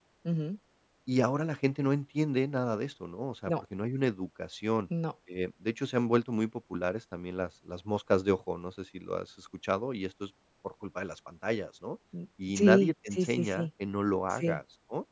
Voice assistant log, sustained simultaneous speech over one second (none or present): present